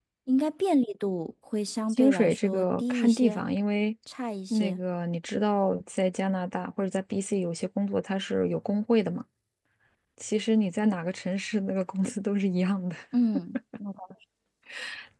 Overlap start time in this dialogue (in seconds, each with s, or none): 1.9 s